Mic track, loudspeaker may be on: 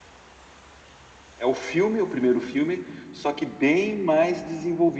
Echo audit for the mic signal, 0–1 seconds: neither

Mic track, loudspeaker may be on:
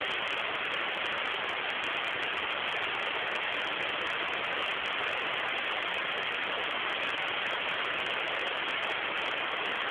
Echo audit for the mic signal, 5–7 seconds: neither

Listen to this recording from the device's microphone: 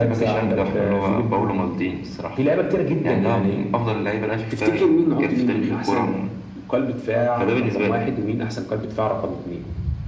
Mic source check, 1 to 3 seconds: echo only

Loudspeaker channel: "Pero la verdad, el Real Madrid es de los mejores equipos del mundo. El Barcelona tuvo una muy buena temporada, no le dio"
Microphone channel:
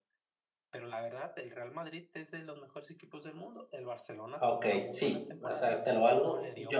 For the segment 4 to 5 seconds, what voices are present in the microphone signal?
both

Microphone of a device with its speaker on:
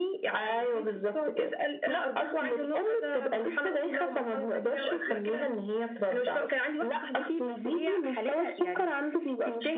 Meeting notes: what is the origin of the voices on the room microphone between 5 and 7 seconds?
echo only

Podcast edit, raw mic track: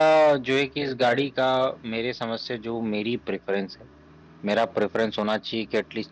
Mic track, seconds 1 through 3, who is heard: user only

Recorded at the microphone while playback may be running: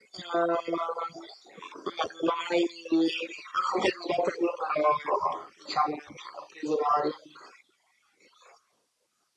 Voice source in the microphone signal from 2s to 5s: echo only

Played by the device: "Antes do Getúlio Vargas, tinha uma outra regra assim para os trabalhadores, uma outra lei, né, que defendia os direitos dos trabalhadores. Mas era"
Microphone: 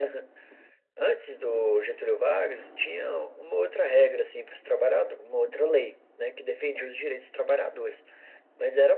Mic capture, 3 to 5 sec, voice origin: echo only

